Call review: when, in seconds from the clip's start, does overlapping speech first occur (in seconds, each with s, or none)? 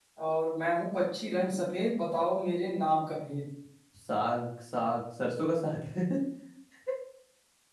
none